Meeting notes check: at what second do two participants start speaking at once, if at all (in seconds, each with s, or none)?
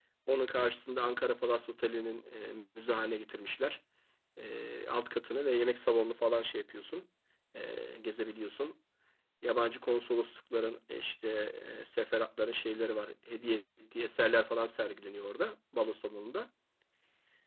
none